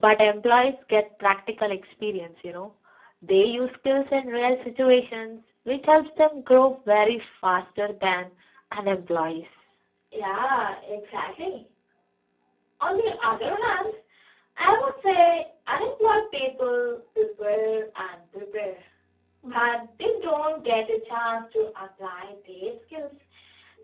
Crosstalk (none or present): none